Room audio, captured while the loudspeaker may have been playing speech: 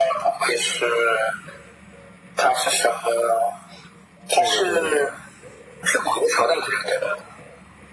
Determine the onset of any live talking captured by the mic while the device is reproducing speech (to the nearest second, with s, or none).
4 s